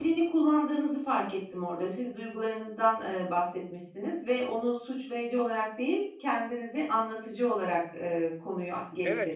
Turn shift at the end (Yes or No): Yes